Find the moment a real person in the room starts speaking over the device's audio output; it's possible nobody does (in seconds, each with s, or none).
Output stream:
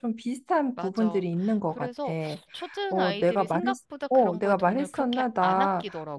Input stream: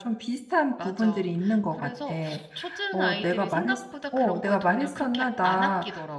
none